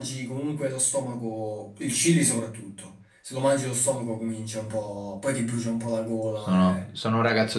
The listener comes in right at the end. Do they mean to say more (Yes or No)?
Yes